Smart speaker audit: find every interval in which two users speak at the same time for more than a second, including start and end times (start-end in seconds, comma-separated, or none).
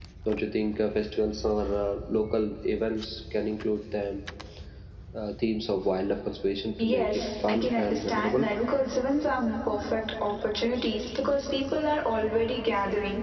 6.8-8.4